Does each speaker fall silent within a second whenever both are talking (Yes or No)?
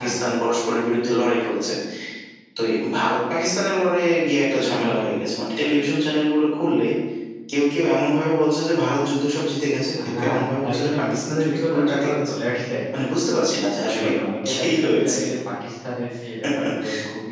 No